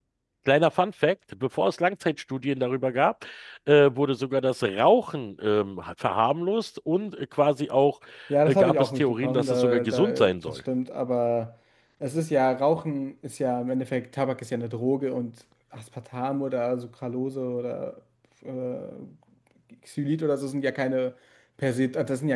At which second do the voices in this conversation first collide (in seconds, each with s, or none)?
8.5 s